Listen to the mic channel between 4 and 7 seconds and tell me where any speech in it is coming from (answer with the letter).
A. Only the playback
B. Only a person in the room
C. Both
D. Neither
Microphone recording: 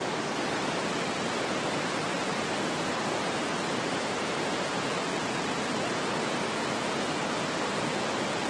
D